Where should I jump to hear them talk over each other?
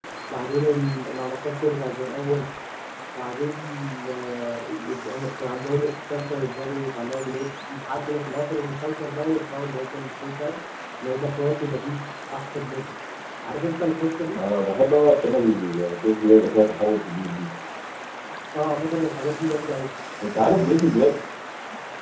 none

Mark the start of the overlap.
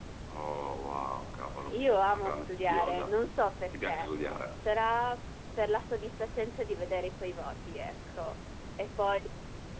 1.8 s

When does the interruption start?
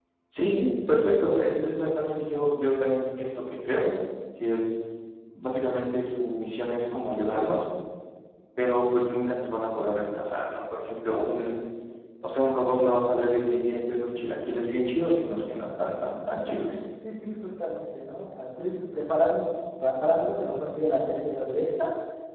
none

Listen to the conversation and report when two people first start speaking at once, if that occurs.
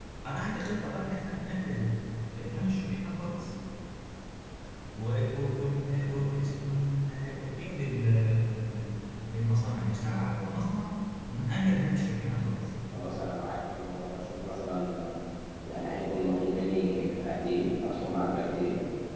none

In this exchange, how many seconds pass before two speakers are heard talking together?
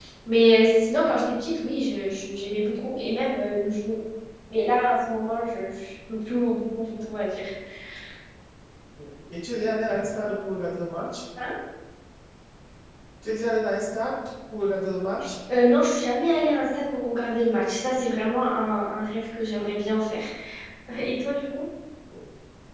none

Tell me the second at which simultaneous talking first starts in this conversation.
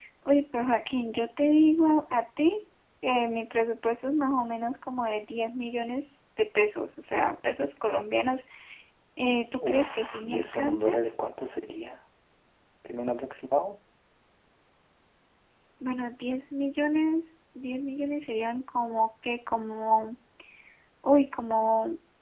9.7 s

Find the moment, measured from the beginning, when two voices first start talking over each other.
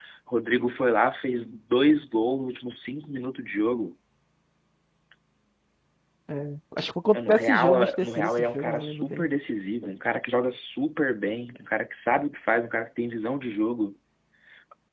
7.1 s

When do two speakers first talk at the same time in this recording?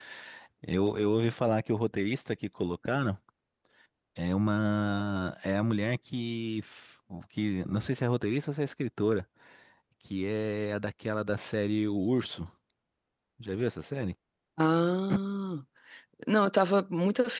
none

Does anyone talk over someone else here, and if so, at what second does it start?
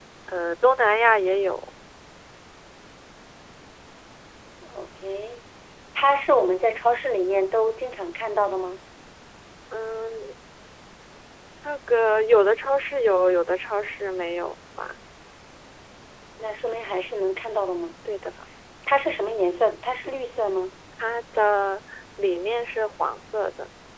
none

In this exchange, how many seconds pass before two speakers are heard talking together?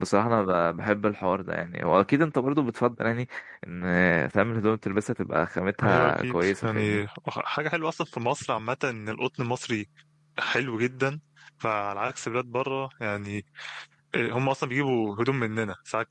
5.8 s

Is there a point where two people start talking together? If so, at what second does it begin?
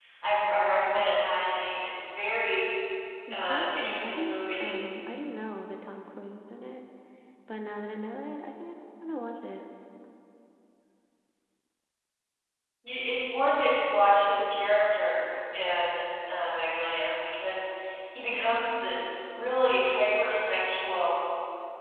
3.3 s

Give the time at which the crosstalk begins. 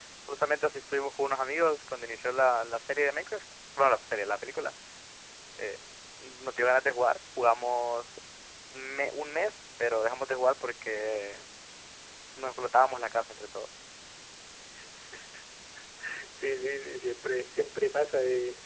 none

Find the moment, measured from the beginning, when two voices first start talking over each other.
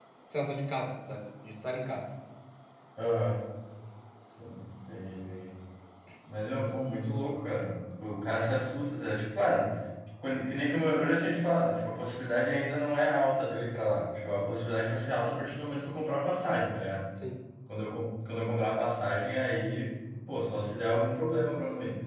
none

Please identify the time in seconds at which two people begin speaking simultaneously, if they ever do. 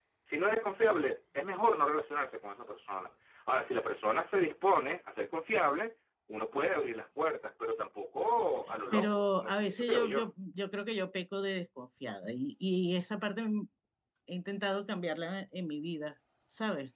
8.9 s

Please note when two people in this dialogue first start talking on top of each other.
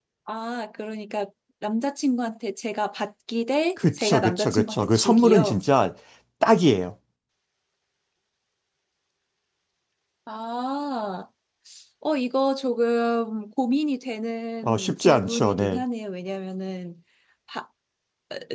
3.8 s

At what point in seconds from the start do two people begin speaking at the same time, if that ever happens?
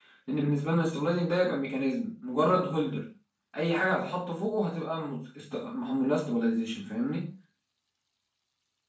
none

